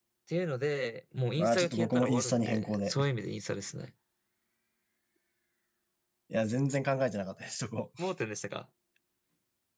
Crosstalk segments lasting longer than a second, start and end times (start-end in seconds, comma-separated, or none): 1.4-3.0